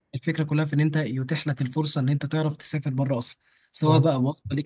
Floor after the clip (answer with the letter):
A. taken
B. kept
B